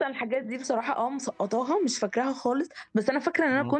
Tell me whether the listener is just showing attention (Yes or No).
Yes